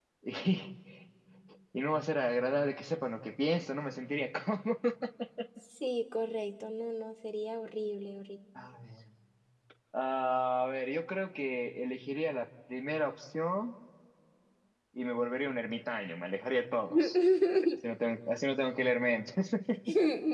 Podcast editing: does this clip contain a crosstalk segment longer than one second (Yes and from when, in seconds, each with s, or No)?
No